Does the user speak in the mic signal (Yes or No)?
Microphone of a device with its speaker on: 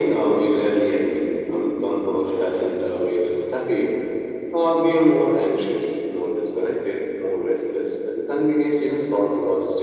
No